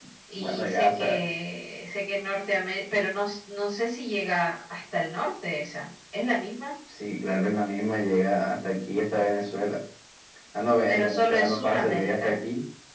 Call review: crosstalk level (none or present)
present